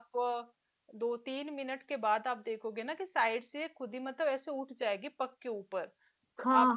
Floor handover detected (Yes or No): Yes